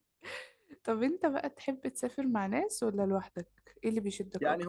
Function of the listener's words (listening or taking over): taking over